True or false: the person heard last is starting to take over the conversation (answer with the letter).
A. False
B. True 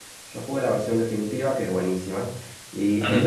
A